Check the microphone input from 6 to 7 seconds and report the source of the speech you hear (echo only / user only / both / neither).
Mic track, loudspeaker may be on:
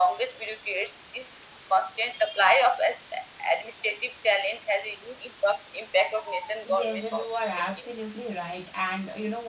both